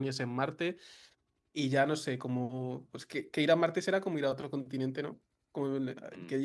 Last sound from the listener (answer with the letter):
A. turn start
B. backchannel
B